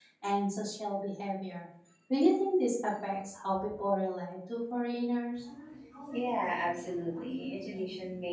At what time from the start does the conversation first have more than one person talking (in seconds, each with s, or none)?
none